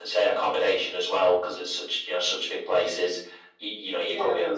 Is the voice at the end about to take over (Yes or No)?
No